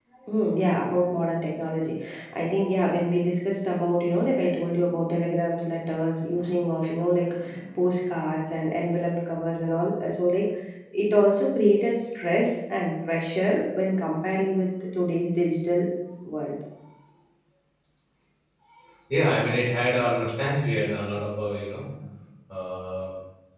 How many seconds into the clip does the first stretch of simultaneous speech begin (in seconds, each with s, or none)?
none